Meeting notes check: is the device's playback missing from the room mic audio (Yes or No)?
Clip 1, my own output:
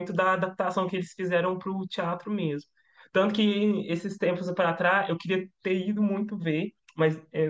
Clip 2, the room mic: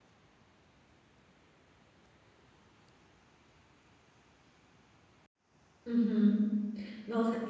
Yes